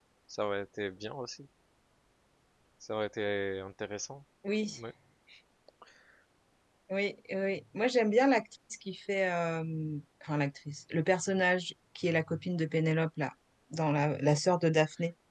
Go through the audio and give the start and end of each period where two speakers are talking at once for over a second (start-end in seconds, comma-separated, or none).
none